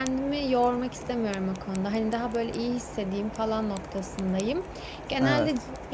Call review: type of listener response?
listening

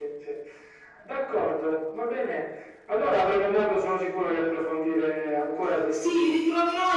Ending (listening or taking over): taking over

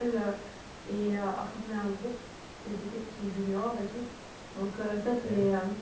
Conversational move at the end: listening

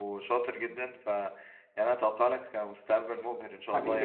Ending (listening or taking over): taking over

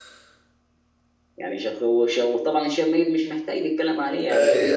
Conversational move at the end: taking over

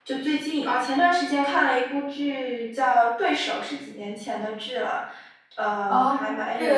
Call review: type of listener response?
taking over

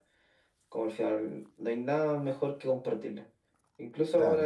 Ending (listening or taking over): listening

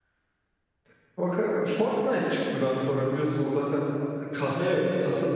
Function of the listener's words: listening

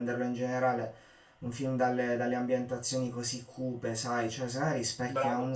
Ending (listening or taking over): listening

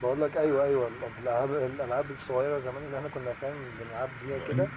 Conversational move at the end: taking over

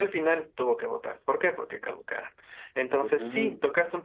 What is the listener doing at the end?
listening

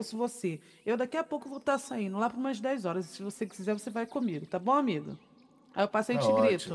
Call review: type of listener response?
taking over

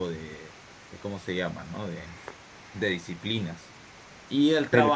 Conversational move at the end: listening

